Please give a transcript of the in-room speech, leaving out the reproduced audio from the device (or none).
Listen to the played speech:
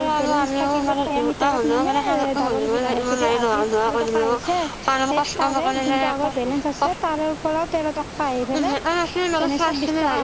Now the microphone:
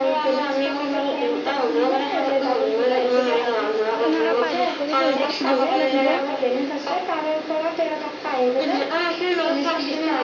তেনেকৈ প্ৰাইভেট কৰি পঢ়িলেতো বহুত লাগিব